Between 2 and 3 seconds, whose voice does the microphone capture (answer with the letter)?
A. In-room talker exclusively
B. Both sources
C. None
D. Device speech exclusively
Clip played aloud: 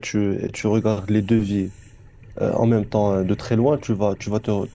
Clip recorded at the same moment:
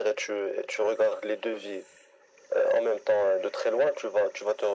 D